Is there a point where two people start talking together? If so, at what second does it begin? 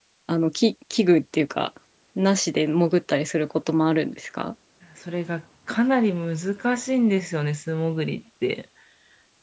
none

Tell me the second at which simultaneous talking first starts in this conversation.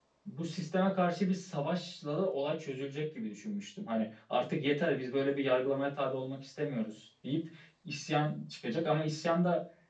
none

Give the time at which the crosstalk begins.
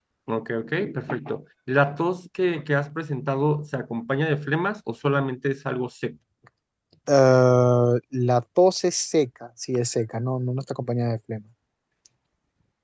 none

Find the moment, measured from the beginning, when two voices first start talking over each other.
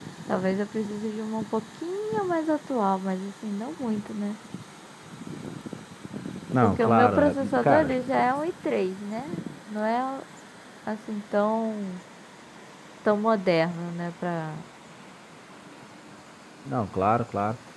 7 s

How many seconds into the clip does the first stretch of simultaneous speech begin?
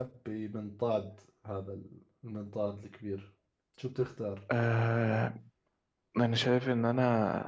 none

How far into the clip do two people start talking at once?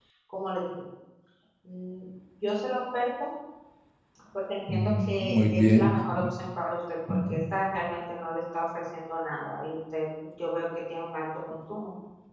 5 s

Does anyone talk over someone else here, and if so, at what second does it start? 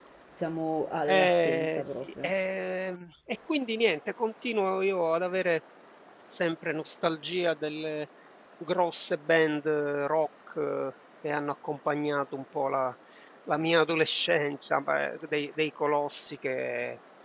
1 s

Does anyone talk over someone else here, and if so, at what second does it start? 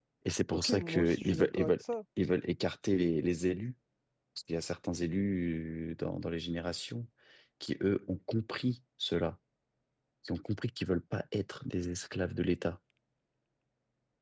1 s

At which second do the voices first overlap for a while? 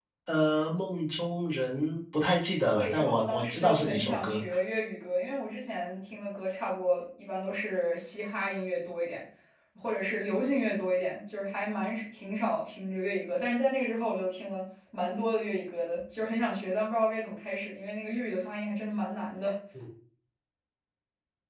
3 s

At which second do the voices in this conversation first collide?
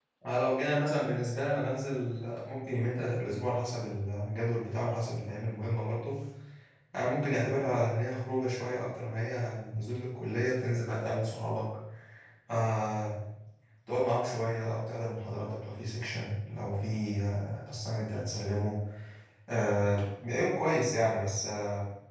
none

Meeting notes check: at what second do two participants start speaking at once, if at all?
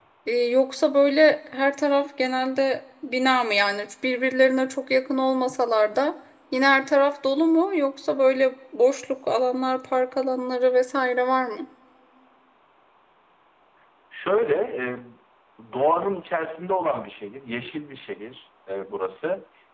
none

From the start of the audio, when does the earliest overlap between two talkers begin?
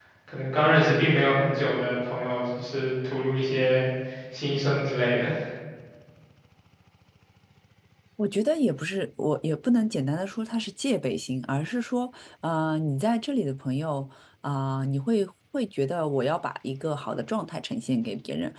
none

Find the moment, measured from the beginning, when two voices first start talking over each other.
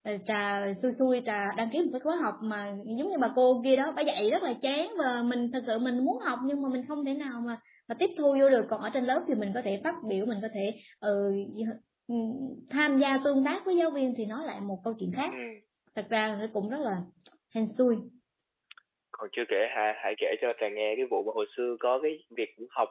none

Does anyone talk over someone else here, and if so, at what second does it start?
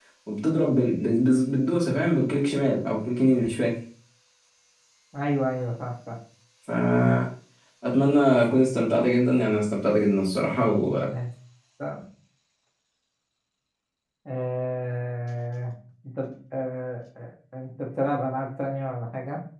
none

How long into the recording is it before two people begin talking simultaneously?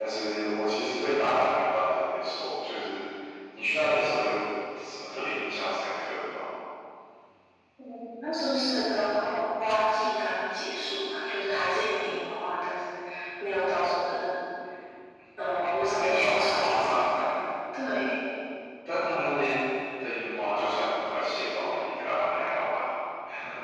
16 s

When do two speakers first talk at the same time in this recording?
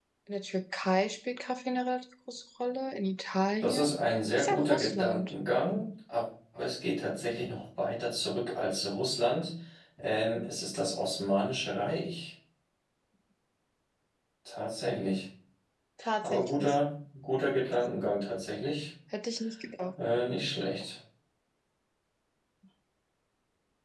4 s

